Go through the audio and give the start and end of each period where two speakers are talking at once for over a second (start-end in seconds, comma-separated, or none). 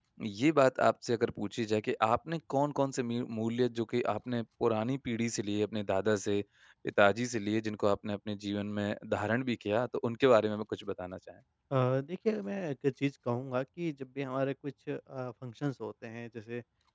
none